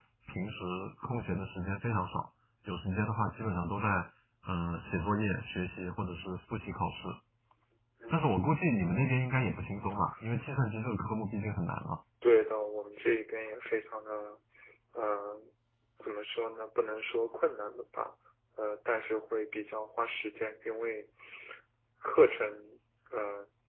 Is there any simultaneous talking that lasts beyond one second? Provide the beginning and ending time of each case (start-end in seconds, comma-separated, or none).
none